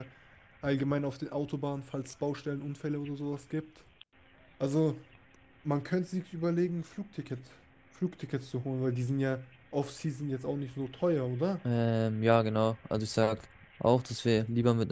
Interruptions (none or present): none